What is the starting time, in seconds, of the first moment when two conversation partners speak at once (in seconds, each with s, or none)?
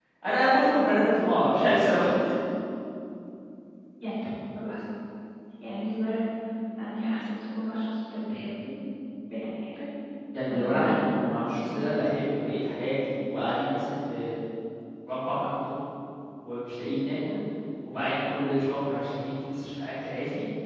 10.5 s